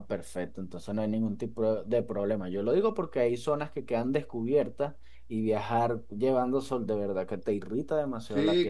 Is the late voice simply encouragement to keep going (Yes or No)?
No